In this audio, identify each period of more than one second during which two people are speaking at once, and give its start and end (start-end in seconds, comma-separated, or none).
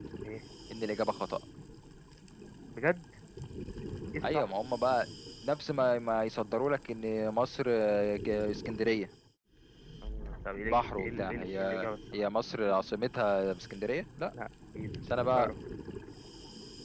10.7-12.2